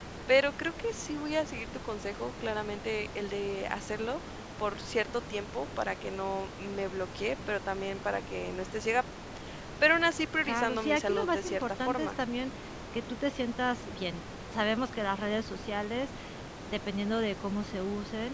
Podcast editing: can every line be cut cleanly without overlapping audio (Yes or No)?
No